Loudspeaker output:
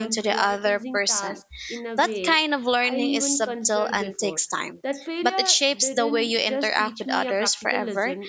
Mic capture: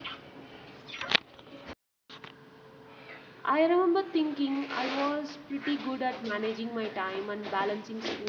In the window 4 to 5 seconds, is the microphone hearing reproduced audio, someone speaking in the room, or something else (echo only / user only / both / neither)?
user only